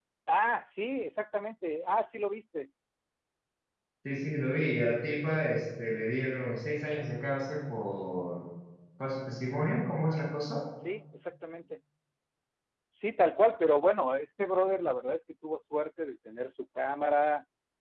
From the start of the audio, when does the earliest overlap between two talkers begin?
none

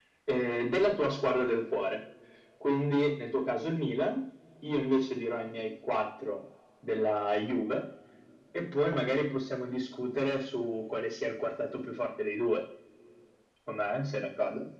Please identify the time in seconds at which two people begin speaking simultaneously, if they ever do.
none

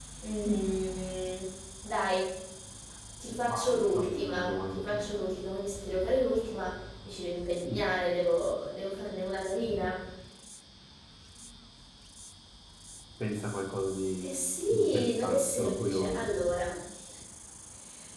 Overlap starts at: 3 s

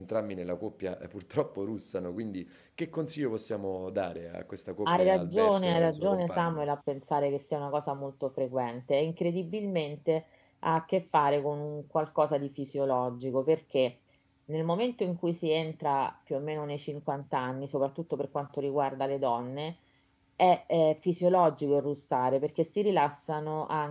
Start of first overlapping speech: 5 s

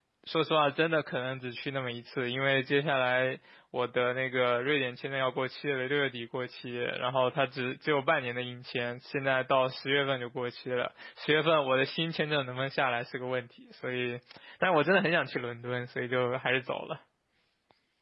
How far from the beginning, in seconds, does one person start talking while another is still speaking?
none

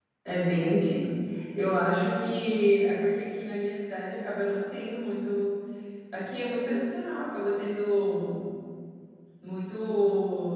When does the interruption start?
none

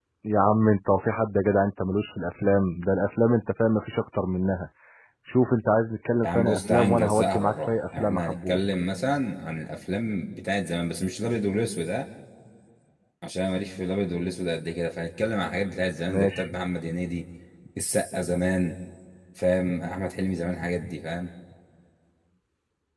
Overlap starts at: 6 s

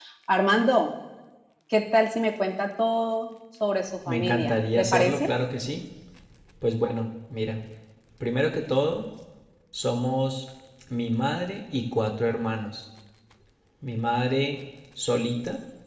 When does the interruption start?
4 s

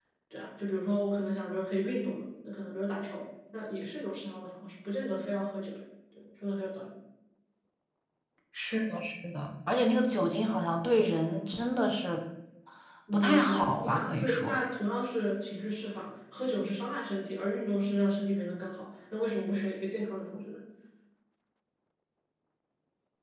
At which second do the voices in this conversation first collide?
13 s

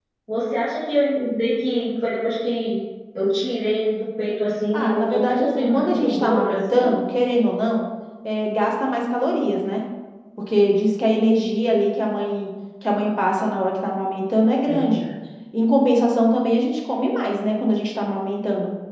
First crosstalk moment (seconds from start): 5 s

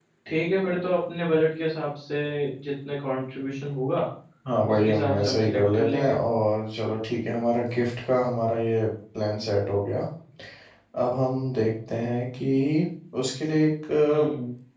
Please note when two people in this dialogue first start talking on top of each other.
5 s

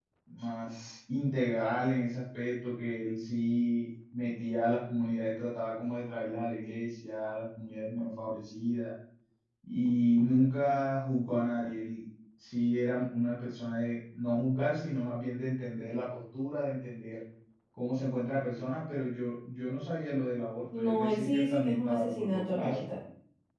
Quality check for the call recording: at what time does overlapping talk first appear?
21 s

